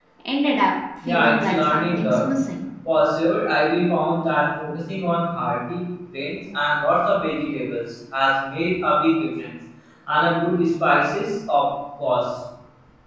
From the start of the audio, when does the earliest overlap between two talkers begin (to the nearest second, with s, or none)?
1 s